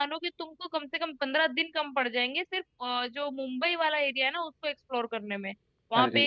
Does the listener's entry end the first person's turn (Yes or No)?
No